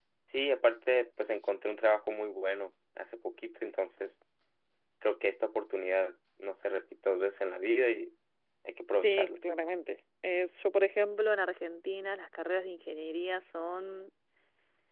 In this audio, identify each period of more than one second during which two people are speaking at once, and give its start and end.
none

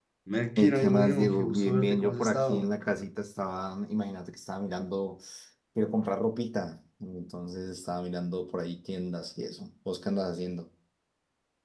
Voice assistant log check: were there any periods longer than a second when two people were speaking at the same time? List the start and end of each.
0.6-2.7

